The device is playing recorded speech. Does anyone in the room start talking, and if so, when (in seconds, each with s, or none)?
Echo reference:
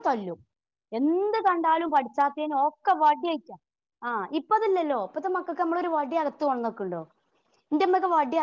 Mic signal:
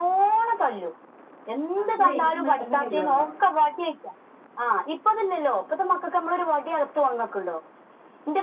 1.8 s